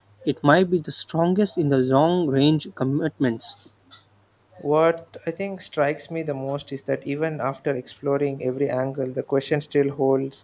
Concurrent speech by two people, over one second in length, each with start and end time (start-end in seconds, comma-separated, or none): none